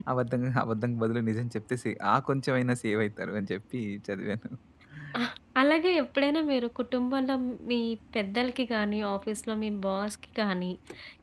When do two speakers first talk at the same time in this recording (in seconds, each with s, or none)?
none